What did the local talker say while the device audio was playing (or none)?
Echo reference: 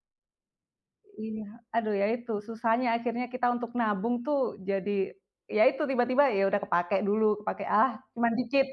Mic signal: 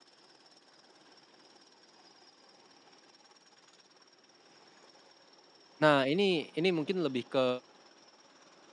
Nah, ini ini mungkin lebih ke